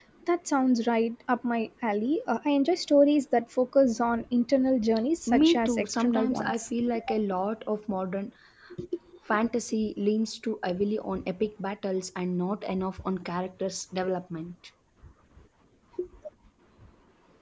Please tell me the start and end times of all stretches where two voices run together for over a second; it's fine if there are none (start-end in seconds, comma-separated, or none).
5.3-6.6